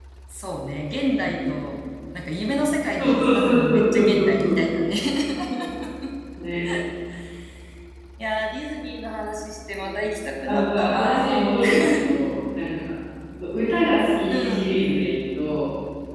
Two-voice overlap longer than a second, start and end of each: 3.0-4.6, 10.5-12.2

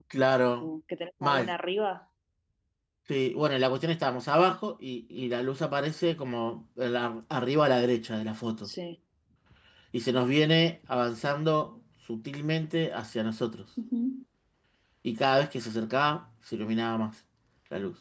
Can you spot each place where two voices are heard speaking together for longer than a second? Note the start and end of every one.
none

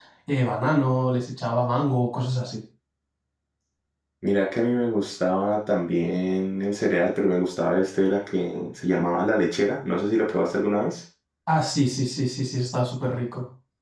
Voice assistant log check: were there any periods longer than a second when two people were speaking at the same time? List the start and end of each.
none

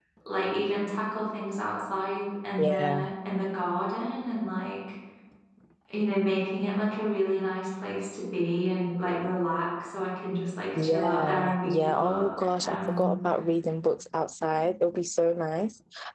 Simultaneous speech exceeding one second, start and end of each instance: 10.8-13.1

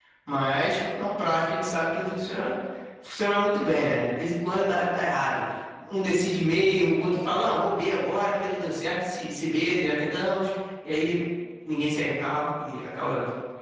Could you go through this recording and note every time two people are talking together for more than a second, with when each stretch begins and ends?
none

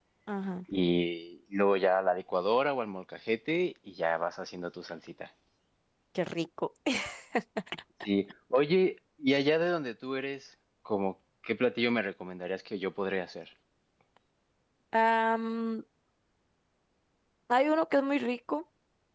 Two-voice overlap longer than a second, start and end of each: none

